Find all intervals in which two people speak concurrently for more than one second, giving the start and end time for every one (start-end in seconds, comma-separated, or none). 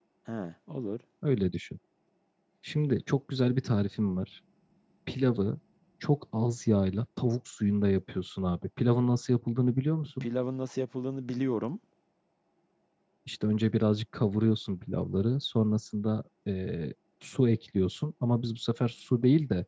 none